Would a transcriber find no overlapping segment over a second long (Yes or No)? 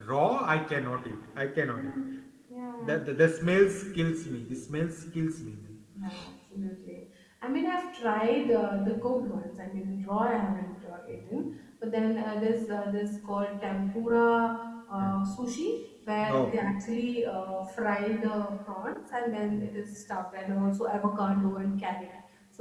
Yes